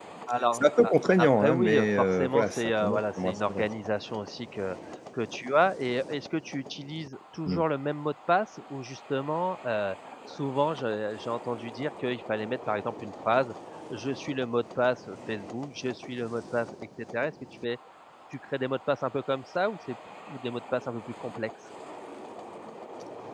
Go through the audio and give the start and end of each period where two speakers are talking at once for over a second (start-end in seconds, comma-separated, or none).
0.5-3.7